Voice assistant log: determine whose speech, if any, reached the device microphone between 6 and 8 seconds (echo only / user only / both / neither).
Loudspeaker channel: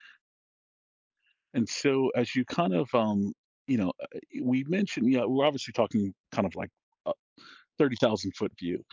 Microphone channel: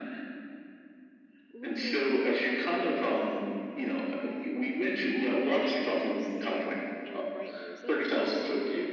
both